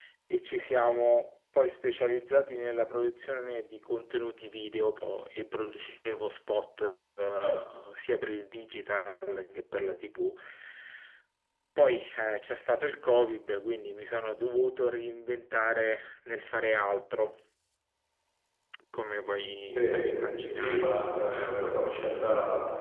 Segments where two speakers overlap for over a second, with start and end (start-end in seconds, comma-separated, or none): 19.7-20.9